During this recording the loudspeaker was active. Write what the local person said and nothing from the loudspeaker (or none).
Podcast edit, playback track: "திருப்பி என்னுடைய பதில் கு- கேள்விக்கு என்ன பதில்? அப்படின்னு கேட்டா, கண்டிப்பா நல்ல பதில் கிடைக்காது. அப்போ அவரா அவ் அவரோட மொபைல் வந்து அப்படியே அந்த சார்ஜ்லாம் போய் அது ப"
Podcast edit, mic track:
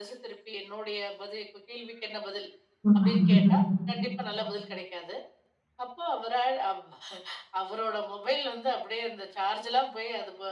ம்.